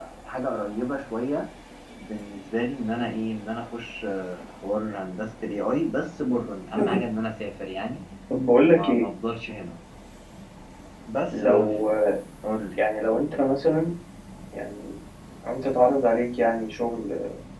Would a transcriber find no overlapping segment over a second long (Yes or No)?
Yes